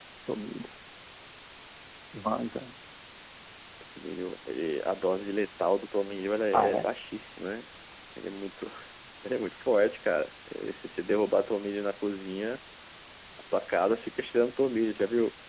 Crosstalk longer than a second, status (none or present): none